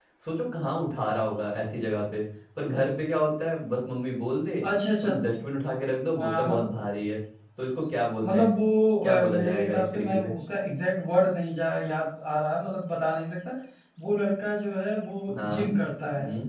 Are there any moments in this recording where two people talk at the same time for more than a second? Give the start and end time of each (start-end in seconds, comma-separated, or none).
9.0-10.3